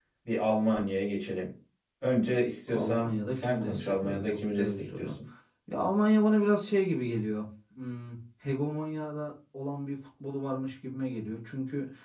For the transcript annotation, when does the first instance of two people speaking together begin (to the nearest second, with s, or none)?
3 s